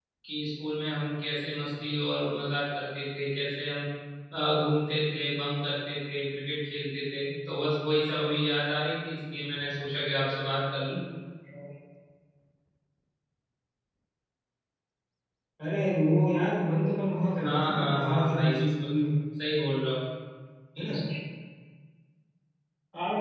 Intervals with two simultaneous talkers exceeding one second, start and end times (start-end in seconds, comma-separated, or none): 17.4-18.9